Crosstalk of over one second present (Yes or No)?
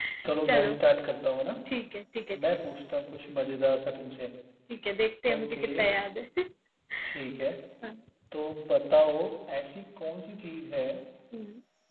No